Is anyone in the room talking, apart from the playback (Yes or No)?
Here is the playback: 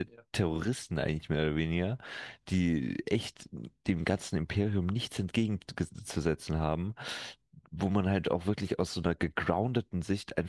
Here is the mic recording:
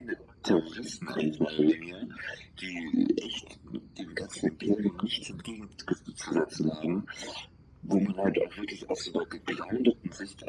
No